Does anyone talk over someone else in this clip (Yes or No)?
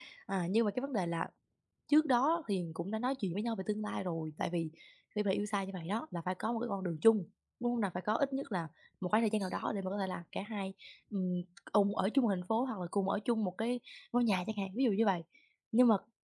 No